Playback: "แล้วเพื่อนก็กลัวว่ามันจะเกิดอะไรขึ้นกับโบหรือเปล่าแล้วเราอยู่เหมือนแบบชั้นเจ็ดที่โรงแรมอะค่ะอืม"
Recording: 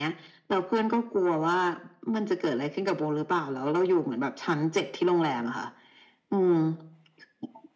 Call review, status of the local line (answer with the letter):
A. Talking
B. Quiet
B